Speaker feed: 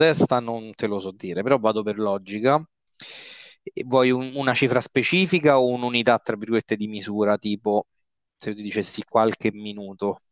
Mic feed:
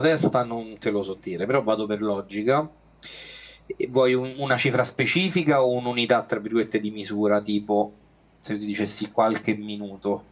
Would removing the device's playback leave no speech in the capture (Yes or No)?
Yes